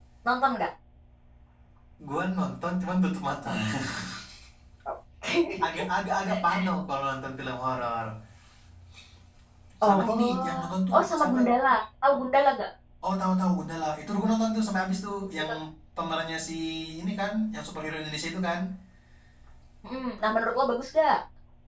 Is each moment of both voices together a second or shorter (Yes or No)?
No